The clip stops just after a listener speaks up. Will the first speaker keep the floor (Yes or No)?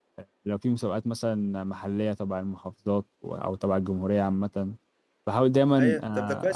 No